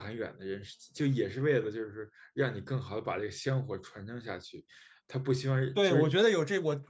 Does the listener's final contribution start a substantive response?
Yes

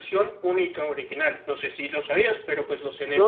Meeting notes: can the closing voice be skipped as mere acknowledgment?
No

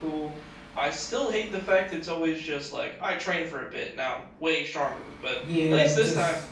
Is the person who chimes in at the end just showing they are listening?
No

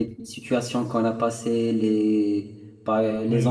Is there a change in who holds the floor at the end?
Yes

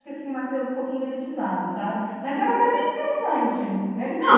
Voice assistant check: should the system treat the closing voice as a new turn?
Yes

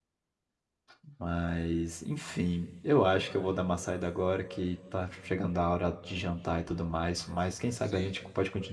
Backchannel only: Yes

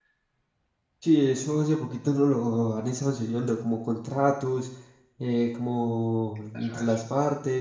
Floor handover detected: No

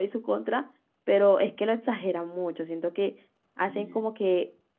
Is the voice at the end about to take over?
No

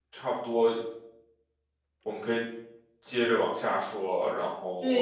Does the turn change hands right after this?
Yes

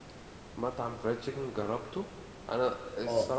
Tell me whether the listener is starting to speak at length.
No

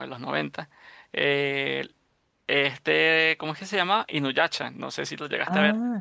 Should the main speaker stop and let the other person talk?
Yes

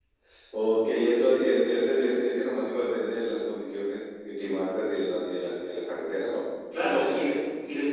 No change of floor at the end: No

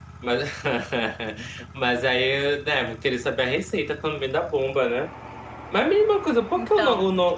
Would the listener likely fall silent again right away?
Yes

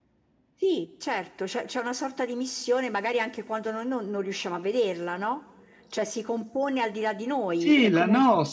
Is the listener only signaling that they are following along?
No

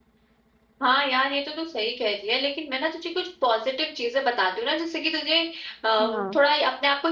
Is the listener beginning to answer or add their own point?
No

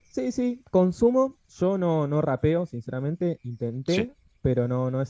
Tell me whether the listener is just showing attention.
Yes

